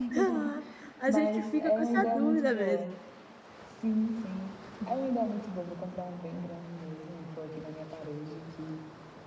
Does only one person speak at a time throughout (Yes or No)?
No